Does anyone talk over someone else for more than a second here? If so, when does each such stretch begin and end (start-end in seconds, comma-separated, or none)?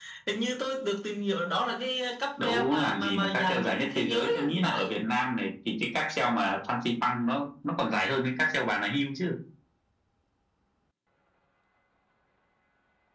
2.4-4.9